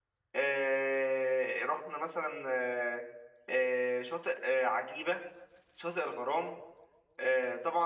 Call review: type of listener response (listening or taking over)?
listening